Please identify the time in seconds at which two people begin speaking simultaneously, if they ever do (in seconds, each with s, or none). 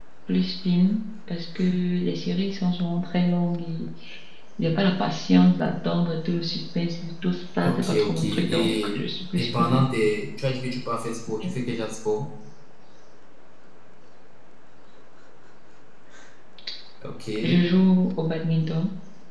7.6 s